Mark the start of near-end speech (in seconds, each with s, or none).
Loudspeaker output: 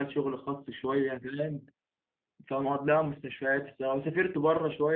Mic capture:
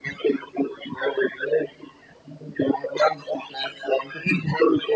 none